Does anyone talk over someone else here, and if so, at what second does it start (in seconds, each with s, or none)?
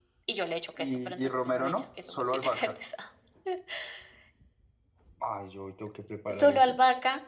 0.8 s